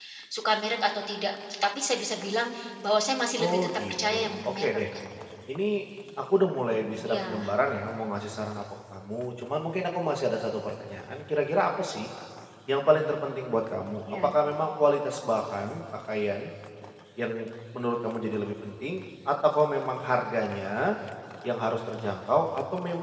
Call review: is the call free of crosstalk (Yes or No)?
No